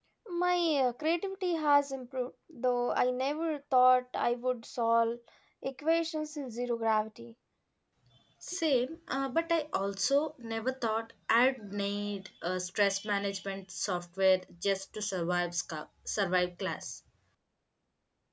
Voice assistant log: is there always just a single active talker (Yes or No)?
Yes